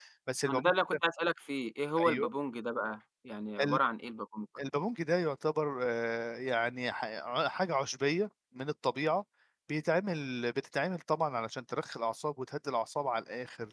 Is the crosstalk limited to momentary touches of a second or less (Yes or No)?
Yes